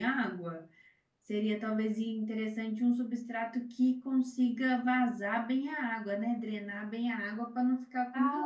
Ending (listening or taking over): taking over